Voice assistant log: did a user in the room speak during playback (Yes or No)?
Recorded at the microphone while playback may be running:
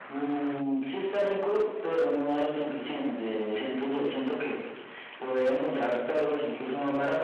No